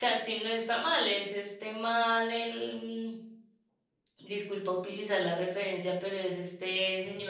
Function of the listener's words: listening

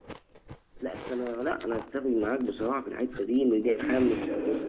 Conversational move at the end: taking over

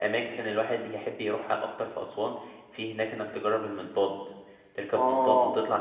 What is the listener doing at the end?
listening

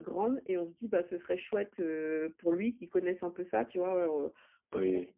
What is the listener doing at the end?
listening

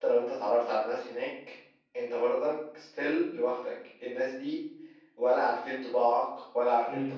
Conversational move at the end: listening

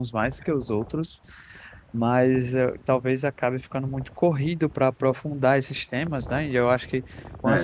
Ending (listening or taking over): listening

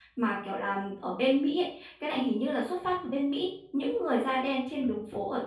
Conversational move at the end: listening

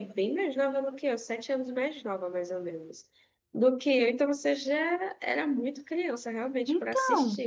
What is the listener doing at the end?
taking over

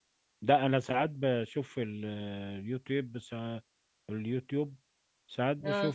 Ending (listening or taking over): listening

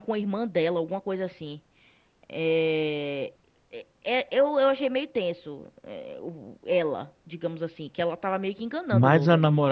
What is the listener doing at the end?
taking over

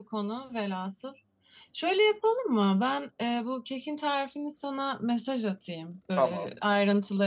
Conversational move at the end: listening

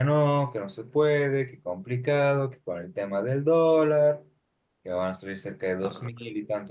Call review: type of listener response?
listening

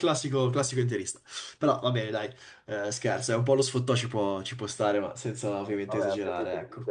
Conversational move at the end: taking over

